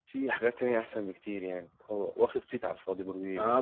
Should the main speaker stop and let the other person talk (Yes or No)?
Yes